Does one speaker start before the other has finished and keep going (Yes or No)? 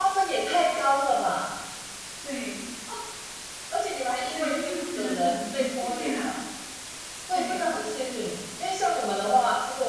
Yes